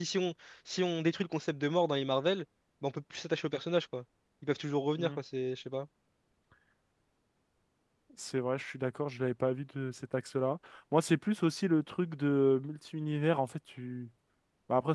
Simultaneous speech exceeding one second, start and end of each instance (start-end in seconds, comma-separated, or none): none